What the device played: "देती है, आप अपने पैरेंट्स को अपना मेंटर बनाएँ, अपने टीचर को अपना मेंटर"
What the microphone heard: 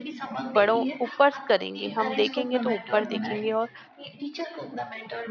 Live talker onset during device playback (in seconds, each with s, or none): 0.6 s